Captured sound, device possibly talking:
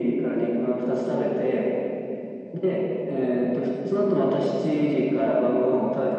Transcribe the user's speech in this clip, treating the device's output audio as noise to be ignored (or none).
none